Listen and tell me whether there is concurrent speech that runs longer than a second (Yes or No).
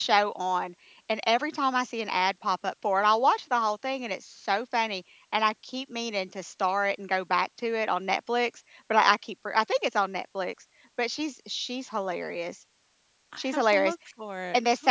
No